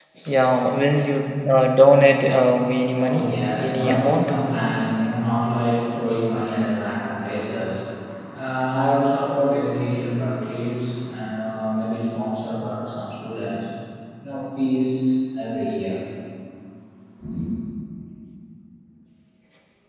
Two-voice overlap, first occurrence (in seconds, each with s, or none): 2.8 s